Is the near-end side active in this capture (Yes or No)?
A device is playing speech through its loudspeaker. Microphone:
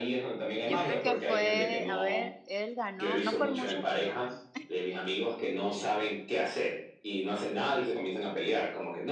Yes